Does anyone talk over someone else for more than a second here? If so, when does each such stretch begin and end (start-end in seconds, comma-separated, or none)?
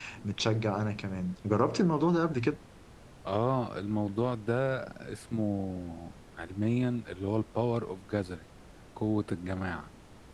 none